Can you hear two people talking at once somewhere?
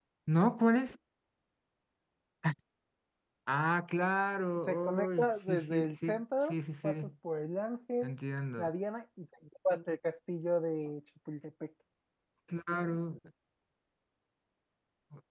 Yes, from 4.7 s

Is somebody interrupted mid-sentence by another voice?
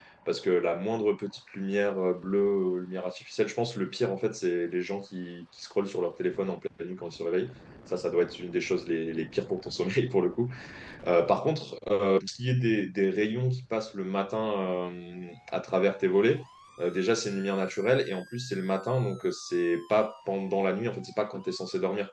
No

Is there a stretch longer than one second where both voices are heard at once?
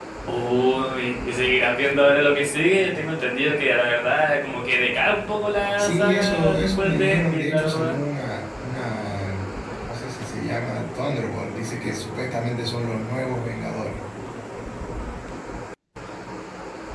Yes, from 5.8 s

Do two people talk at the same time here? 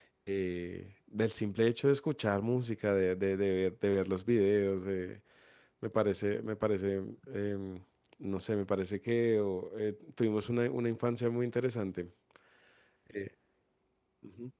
No

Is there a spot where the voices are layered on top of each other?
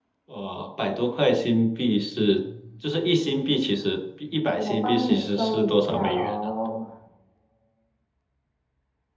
Yes, from 4.6 s

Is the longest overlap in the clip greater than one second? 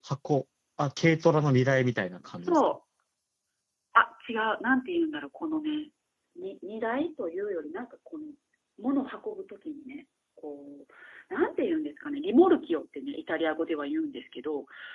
No

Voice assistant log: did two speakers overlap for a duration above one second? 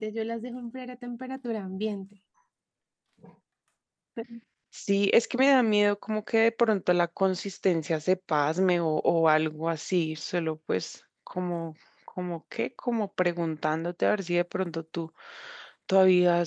No

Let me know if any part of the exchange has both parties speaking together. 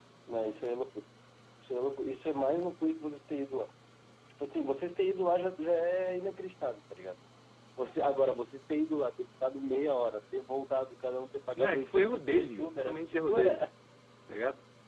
Yes, from 11.6 s

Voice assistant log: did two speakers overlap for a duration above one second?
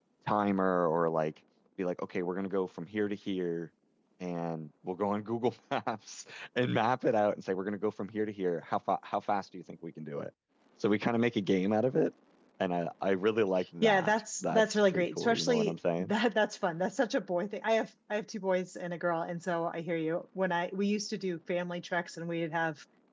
Yes, from 13.8 s

